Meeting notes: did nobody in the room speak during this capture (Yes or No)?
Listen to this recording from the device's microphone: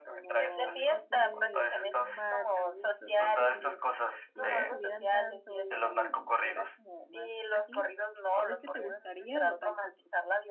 No